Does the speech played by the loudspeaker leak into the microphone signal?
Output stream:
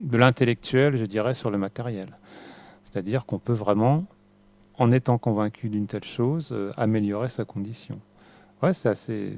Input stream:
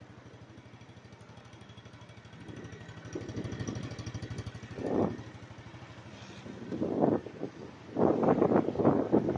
No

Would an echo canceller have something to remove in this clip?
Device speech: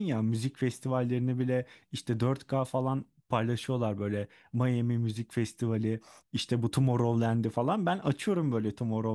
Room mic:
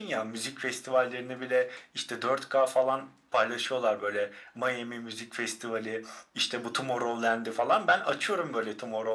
Yes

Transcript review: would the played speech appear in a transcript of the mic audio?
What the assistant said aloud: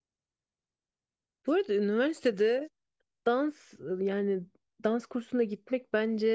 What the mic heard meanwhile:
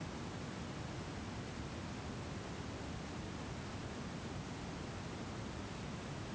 No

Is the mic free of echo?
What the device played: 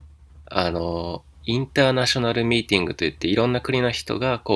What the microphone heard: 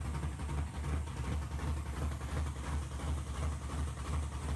Yes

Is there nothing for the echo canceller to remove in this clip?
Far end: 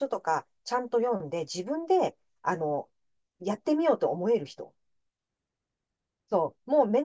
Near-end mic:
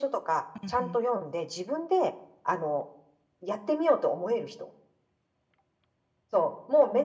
No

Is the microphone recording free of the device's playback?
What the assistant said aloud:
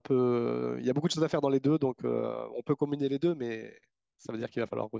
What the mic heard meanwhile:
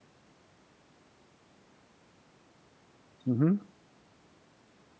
Yes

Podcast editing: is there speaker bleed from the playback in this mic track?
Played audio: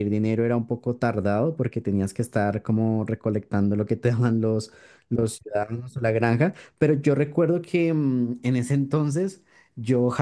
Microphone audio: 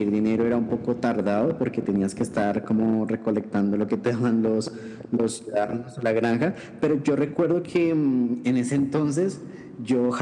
Yes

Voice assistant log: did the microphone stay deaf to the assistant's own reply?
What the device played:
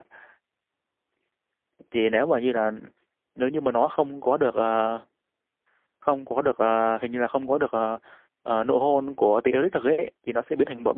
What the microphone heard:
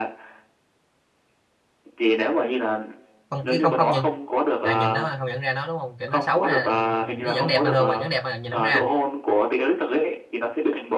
No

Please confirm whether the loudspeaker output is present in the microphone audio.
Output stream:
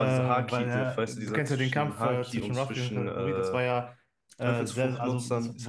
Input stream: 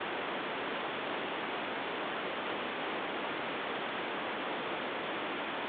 No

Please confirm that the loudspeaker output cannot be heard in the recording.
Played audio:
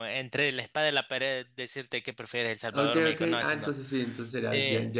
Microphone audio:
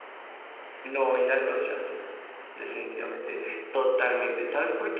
Yes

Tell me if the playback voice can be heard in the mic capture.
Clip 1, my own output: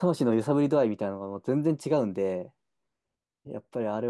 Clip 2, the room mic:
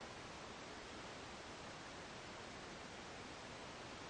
No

